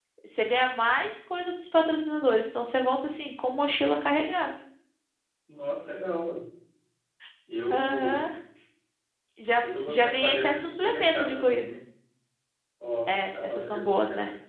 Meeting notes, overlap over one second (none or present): present